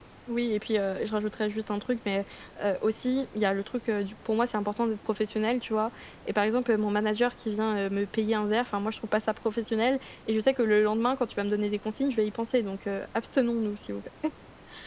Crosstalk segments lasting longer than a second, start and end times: none

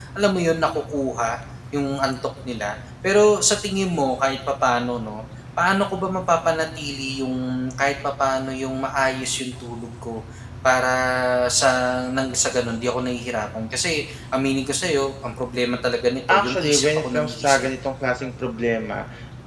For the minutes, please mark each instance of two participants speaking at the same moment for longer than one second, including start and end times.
16.3-17.7

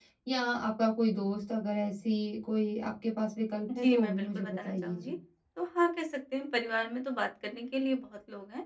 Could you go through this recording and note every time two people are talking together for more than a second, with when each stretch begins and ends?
3.8-5.2

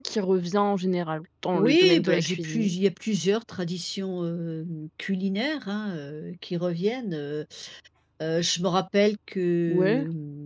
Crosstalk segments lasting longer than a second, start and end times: 1.5-2.7

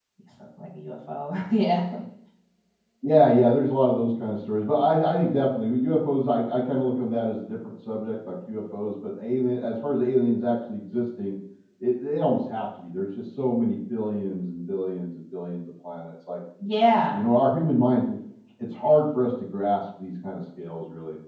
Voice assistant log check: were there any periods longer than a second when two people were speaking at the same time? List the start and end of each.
none

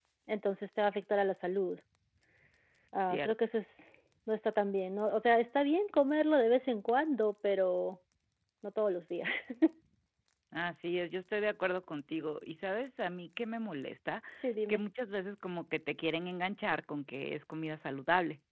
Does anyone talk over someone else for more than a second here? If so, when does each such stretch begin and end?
none

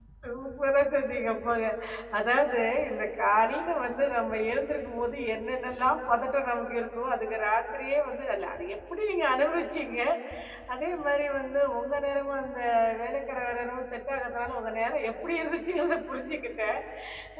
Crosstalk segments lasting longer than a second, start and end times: none

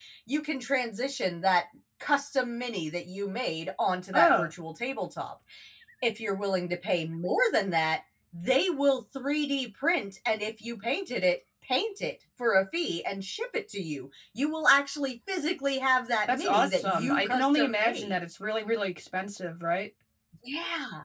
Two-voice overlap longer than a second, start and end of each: 16.3-18.2

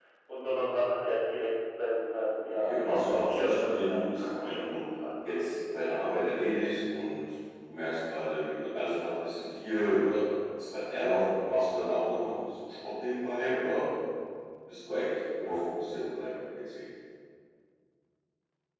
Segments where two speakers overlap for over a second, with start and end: 2.7-4.8

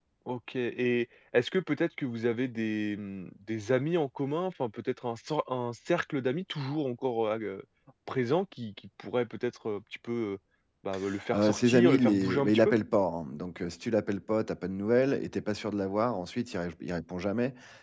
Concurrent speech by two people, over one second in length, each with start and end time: 11.3-12.7

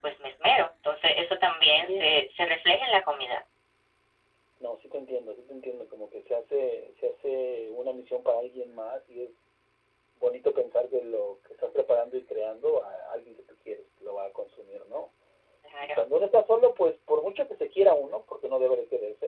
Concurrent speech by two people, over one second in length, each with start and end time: none

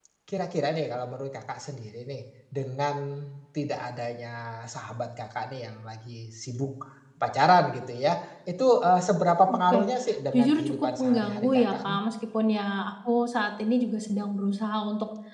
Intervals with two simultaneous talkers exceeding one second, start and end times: 10.3-12.0

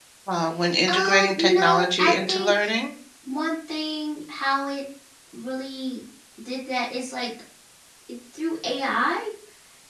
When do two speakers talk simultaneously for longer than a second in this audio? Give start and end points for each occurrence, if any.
0.9-2.5

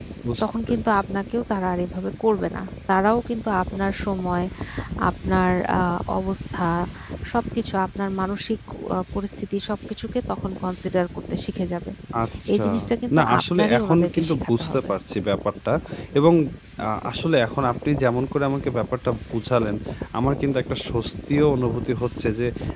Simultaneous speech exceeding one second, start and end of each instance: 13.2-14.9

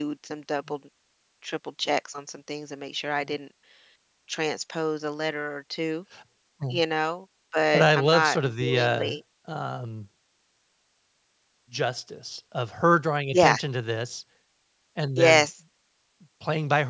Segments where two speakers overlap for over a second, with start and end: 7.7-9.2

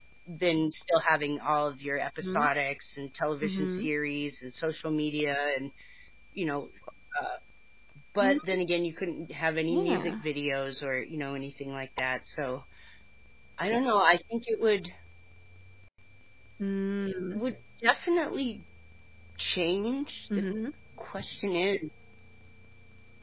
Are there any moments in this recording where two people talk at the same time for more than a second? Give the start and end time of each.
none

